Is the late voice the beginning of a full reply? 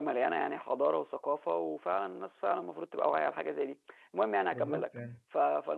No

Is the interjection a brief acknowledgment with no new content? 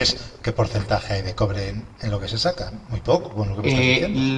No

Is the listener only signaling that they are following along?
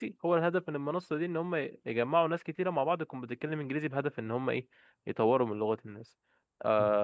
No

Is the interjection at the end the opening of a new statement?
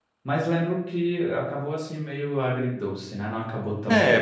Yes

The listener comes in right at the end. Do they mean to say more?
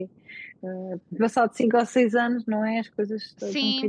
Yes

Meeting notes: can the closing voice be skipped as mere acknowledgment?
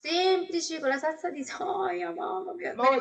No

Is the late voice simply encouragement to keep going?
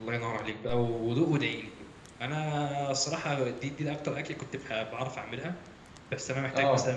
Yes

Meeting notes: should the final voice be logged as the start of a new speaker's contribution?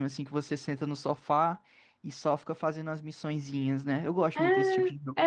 Yes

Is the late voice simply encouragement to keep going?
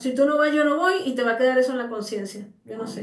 No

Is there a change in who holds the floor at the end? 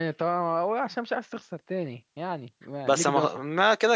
Yes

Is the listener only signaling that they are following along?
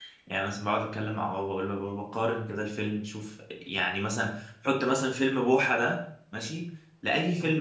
Yes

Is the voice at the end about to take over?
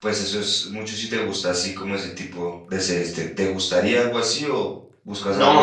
Yes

